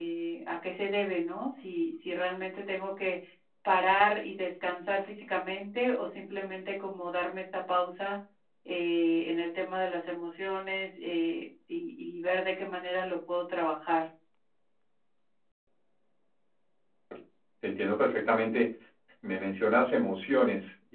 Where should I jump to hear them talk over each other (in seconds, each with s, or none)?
none